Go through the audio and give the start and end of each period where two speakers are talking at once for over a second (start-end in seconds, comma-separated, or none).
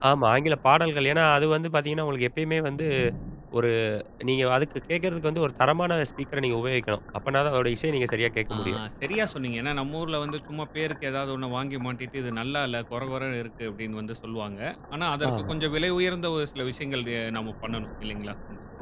none